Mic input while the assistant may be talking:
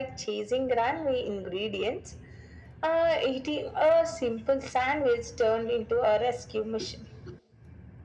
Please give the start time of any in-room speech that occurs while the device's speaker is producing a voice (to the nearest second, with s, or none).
none